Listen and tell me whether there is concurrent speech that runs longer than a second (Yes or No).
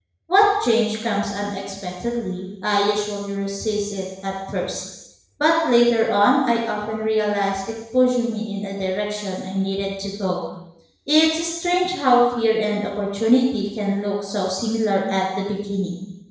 No